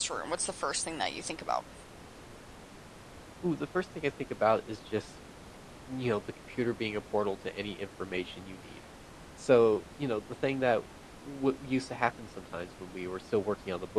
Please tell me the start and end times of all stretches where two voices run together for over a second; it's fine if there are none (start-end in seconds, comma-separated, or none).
none